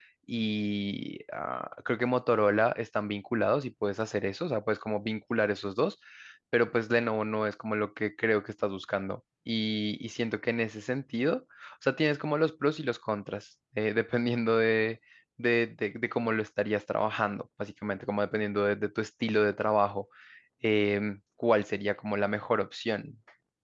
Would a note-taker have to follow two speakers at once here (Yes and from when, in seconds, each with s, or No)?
No